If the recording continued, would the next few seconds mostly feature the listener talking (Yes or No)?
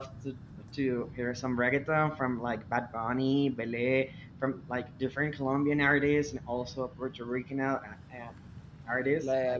Yes